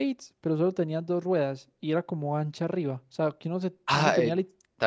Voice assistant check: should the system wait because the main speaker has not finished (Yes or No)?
No